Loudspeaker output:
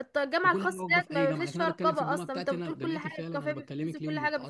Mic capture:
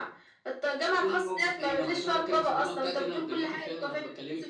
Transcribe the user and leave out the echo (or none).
none